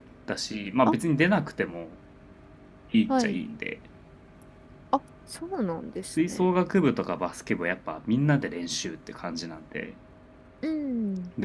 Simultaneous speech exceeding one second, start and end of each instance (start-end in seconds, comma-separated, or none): none